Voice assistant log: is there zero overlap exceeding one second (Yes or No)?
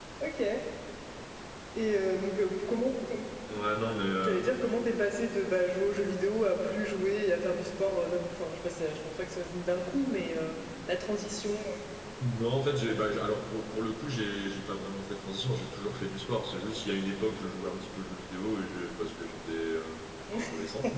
Yes